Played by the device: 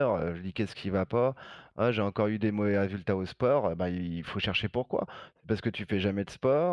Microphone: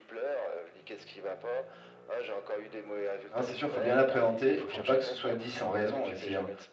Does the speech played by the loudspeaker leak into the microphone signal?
Yes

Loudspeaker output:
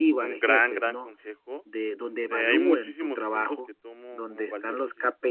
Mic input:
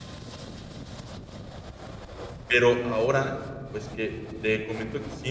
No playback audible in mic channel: Yes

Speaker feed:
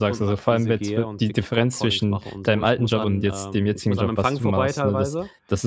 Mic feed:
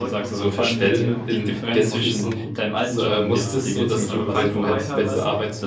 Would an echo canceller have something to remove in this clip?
Yes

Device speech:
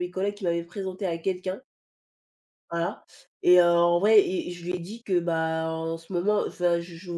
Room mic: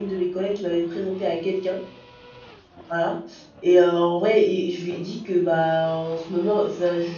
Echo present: Yes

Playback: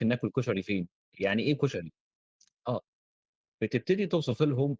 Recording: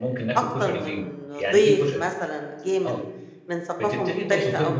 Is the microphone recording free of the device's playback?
No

